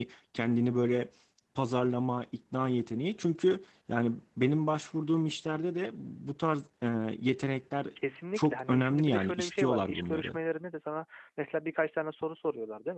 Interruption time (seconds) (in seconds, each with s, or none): 8.4 s